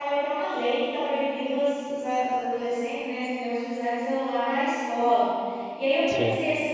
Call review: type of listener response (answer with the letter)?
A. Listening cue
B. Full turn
A